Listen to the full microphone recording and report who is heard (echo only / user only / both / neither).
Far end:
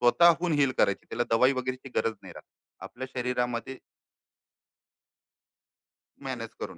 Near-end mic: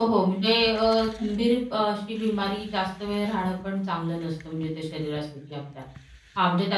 user only